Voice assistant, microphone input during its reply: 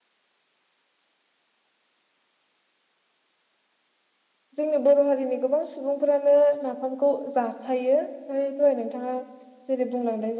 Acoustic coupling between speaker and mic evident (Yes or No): No